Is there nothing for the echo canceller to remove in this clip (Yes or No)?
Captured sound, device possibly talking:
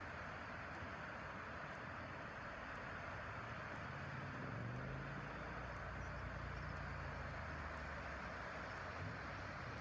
Yes